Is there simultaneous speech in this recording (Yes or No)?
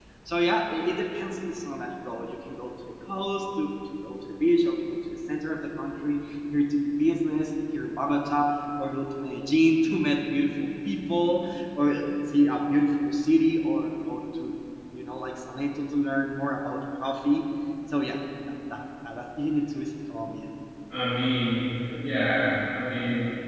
No